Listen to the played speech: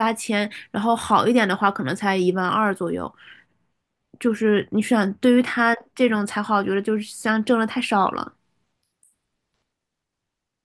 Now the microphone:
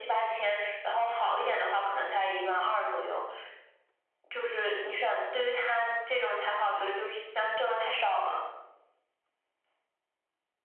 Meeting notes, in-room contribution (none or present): none